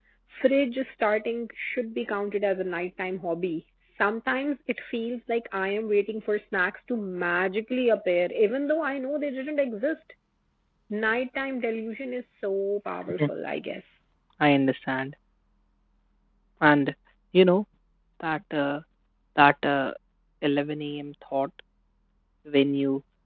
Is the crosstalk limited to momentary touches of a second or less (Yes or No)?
Yes